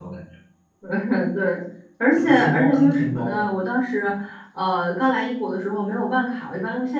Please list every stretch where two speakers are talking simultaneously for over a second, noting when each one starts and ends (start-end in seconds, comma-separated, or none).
2.2-3.5